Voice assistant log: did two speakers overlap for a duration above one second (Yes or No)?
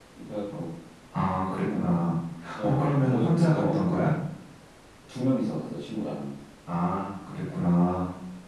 Yes